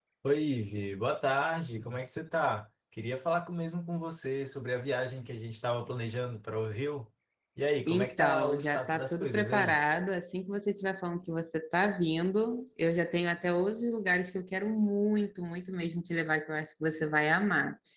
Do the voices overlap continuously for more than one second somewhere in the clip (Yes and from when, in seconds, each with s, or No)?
Yes, from 7.9 s